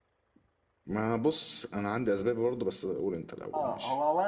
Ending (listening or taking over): taking over